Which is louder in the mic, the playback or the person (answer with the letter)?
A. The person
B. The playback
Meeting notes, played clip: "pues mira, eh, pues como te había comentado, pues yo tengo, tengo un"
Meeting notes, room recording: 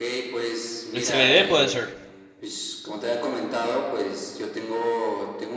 A